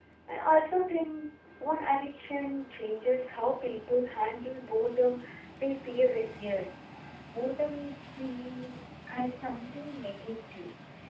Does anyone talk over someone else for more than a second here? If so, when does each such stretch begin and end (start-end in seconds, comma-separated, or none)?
none